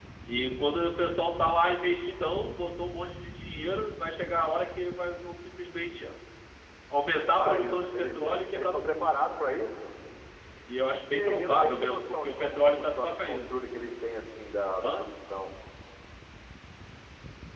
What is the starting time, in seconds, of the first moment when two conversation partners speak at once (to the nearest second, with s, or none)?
7 s